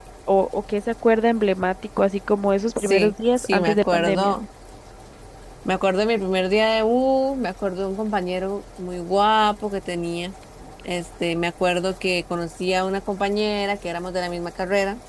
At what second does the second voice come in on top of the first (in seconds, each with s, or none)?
2.8 s